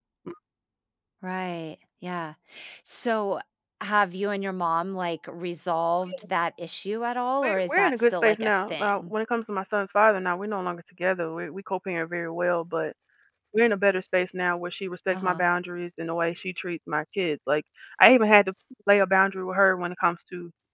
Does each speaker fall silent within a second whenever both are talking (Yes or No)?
No